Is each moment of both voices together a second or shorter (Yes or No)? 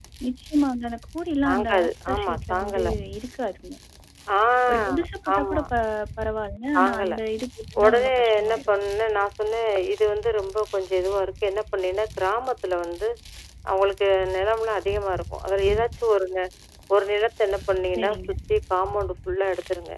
No